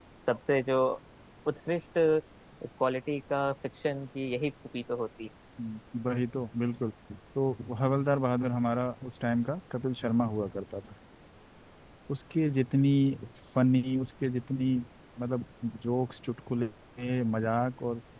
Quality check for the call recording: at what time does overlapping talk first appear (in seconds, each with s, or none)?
none